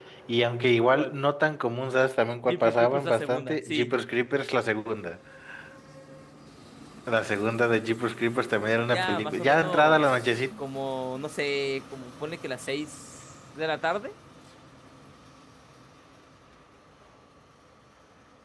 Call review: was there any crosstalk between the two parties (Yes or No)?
Yes